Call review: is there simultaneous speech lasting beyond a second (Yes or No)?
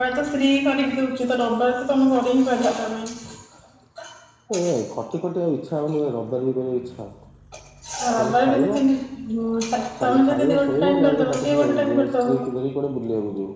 Yes